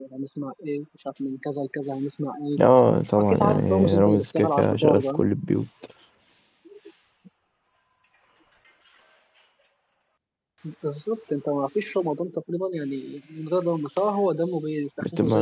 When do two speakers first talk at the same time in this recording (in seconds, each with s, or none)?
3.1 s